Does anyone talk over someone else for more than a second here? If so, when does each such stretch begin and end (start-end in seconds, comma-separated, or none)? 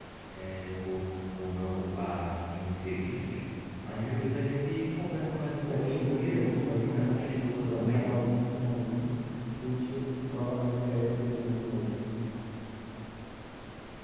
5.6-8.1